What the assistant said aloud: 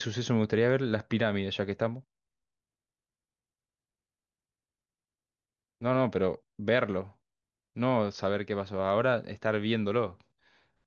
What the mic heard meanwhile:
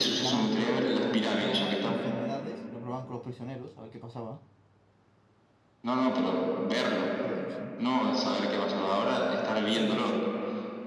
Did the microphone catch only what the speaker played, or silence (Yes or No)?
No